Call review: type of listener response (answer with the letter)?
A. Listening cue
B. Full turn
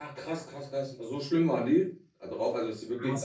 B